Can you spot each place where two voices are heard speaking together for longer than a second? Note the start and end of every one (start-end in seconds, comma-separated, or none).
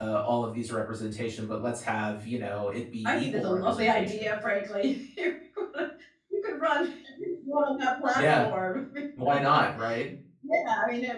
3.0-4.3